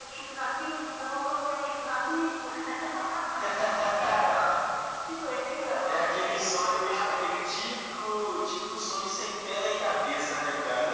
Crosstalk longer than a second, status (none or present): present